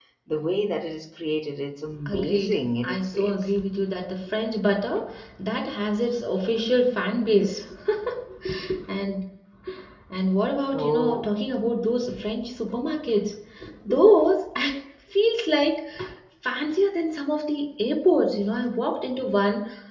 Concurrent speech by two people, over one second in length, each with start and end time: 2.1-3.5

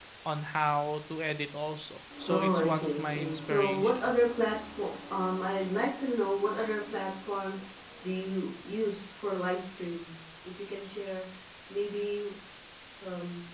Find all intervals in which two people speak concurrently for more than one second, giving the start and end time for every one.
2.3-4.1

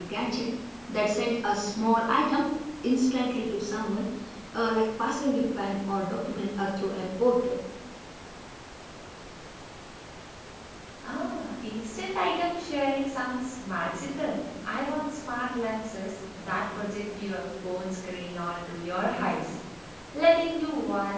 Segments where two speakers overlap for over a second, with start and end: none

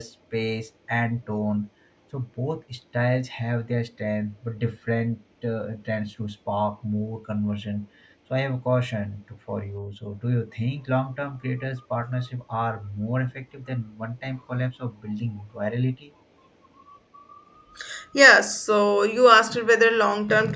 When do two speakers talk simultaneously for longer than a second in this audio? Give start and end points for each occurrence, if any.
none

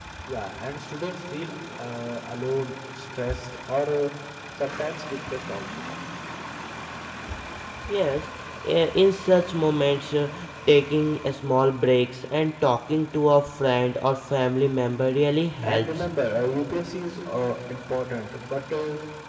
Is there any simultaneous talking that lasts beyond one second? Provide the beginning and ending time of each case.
none

